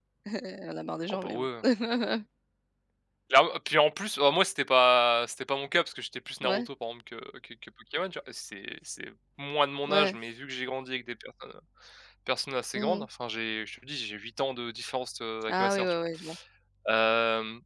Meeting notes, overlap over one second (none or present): none